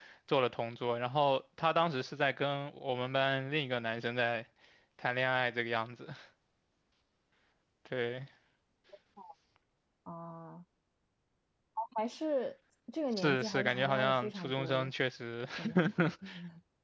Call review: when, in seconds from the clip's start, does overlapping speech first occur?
13.2 s

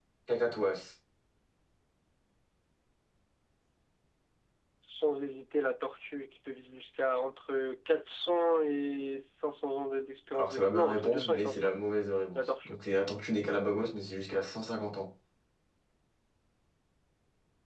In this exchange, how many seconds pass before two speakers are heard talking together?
10.3 s

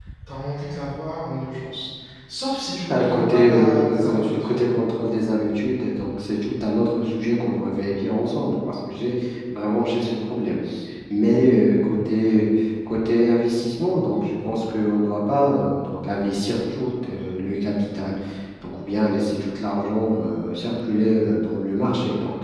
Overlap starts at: 2.9 s

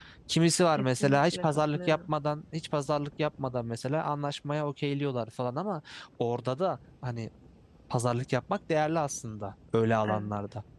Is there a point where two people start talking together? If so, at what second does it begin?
0.7 s

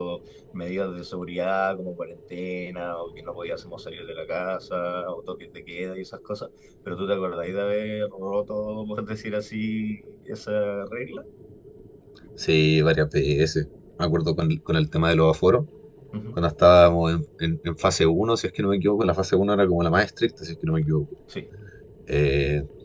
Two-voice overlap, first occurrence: none

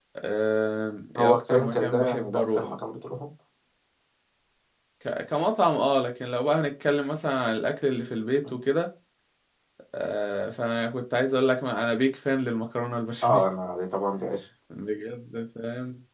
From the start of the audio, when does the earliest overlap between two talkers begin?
1.2 s

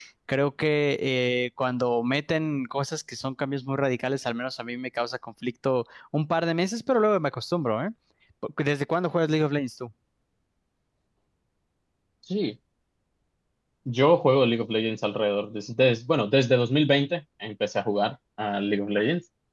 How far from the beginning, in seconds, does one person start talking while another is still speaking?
none

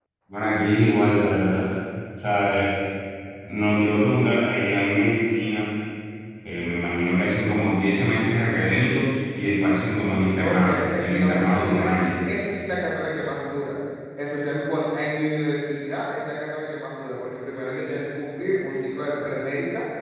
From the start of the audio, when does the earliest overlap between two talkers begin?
10.2 s

